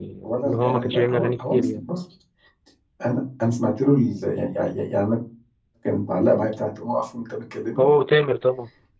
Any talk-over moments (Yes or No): Yes